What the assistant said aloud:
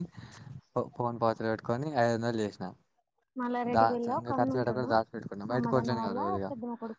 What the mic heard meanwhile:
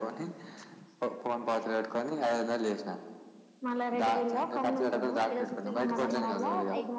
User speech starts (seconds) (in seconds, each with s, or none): 5.3 s